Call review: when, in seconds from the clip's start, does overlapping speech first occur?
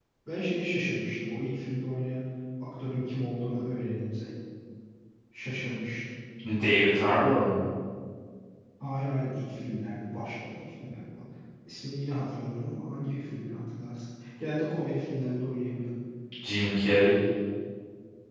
none

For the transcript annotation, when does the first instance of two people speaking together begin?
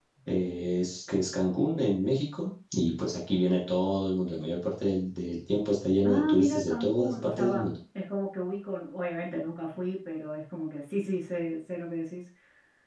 6.0 s

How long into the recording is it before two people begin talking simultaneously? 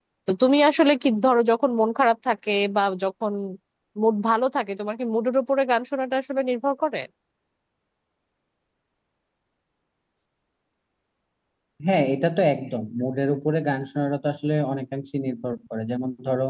none

